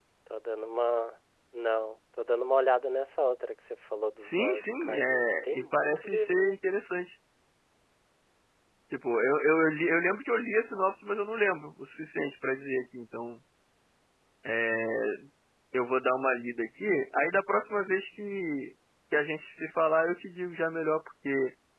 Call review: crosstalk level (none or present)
present